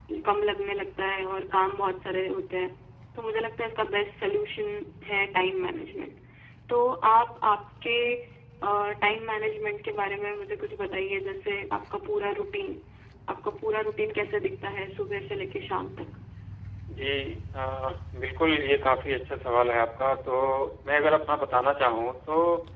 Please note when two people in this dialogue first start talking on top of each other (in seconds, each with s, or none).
none